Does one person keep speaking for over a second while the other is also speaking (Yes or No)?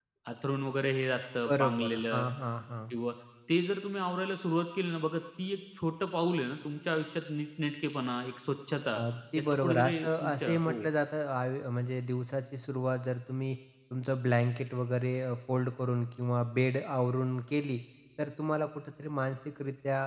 Yes